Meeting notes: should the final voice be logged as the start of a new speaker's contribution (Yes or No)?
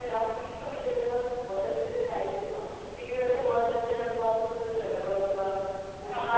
Yes